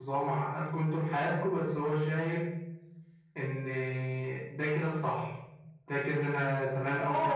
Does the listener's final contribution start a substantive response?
Yes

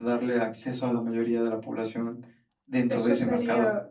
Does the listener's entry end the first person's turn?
Yes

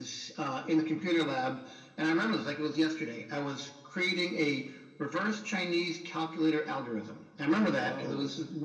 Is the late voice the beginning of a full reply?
No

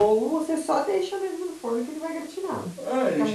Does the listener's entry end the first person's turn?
Yes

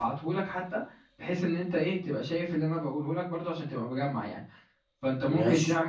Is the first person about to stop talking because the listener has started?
No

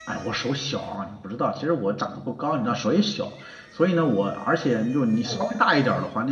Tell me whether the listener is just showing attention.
Yes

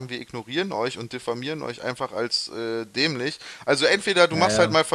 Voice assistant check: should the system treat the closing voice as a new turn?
No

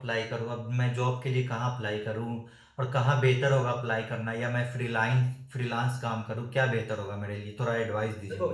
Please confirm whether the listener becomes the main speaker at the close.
Yes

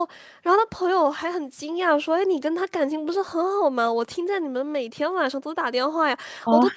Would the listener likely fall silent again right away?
Yes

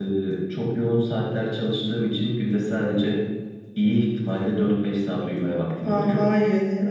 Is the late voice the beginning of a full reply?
Yes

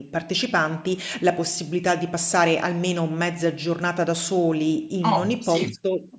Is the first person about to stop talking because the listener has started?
Yes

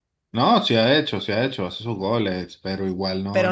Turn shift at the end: Yes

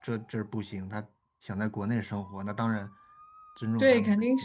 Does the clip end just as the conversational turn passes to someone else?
Yes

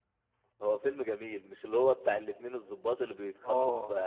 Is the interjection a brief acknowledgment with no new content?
Yes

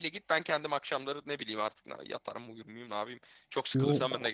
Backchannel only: No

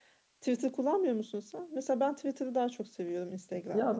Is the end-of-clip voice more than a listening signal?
Yes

